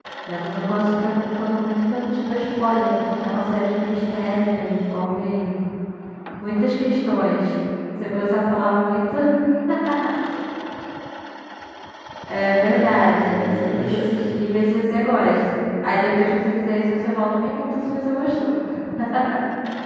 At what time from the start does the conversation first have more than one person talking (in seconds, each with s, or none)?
12.6 s